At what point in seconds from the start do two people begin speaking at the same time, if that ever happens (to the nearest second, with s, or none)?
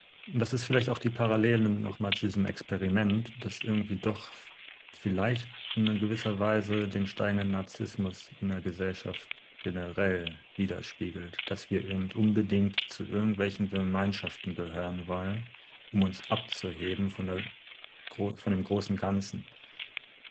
none